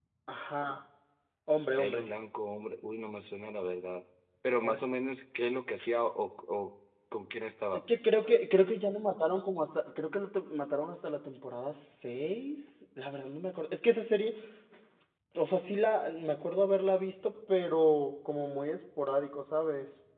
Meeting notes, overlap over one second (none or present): none